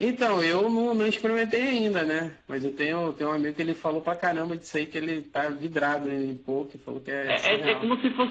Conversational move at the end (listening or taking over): taking over